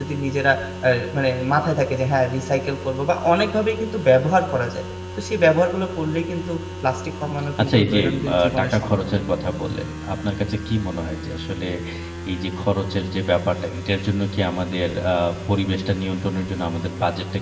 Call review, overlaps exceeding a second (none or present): present